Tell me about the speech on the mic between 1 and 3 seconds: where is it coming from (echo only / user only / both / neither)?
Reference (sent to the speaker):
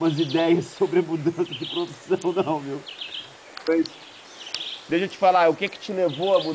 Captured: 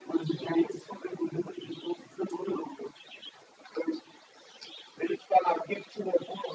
echo only